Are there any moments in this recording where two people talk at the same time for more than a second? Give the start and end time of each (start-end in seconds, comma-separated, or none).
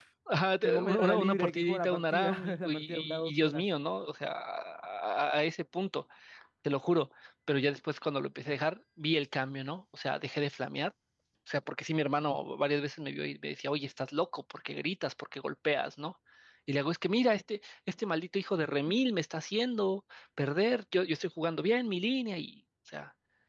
0.6-3.6